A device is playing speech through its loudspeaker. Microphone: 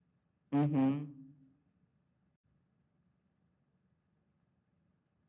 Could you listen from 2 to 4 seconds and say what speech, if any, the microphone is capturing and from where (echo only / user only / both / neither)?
neither